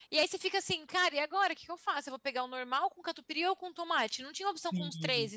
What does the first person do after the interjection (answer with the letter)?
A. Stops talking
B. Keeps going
A